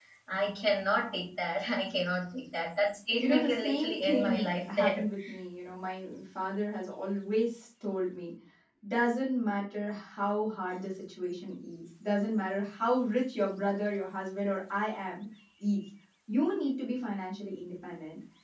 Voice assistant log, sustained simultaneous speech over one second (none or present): present